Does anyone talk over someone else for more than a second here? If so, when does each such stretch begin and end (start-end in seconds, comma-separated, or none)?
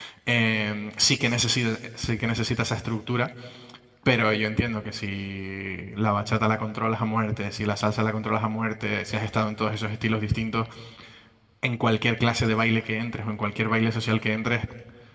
none